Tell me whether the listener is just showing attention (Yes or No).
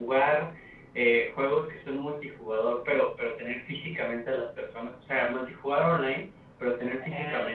Yes